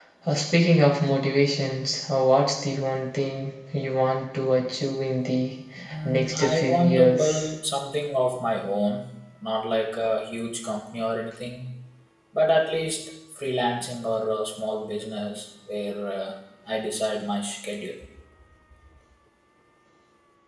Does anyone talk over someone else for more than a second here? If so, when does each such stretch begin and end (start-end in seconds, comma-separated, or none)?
6.0-7.5